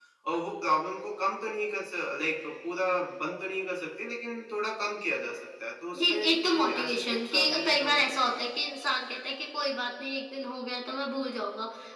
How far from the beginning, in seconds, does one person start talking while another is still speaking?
5.9 s

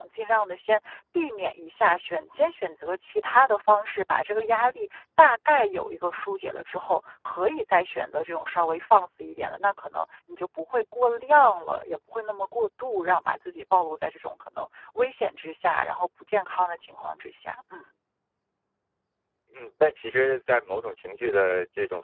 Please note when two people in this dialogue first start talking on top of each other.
none

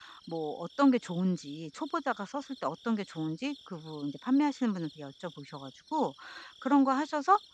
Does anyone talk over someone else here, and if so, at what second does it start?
none

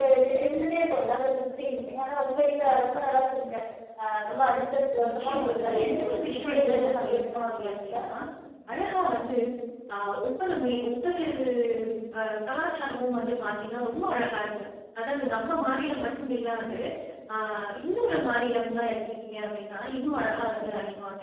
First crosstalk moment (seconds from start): 5.0 s

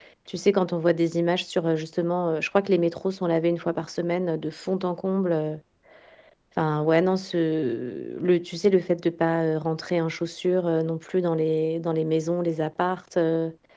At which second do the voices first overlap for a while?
none

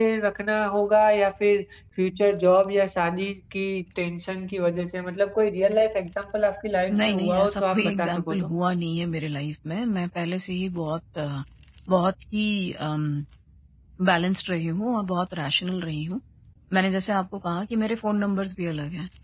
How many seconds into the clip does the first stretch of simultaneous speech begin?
6.9 s

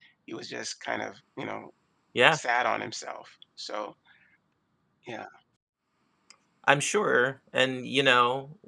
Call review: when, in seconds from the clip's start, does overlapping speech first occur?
none

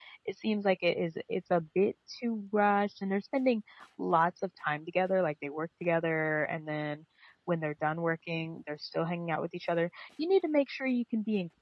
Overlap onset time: none

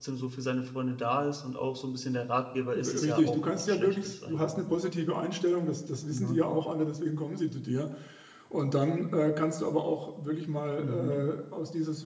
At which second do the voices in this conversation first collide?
2.7 s

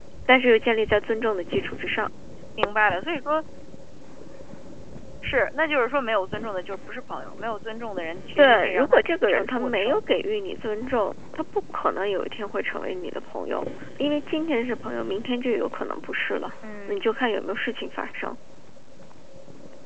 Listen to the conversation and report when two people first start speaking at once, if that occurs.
8.4 s

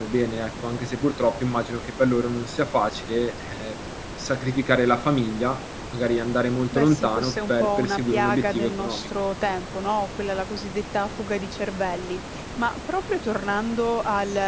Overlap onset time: 6.7 s

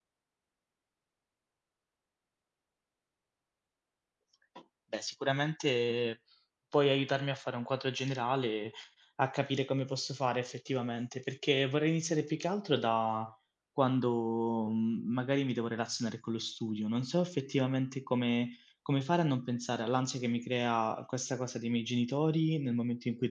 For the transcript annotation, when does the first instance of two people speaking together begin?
none

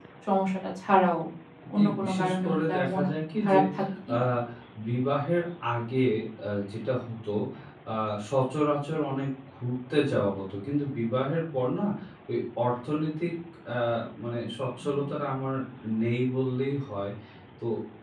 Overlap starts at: 1.8 s

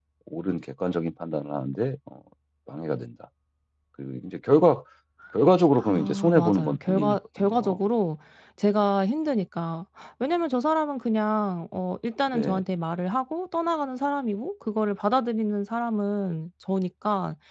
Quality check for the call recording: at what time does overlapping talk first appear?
5.9 s

